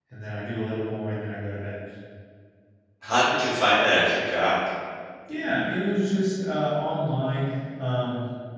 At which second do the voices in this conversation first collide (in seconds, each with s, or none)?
none